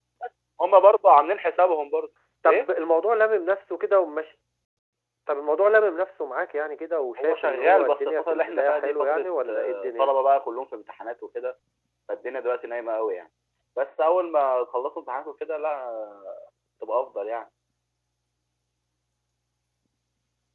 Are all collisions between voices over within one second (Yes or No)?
No